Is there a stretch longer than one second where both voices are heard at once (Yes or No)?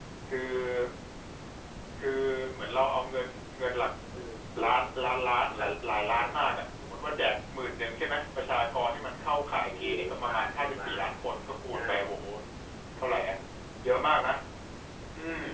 Yes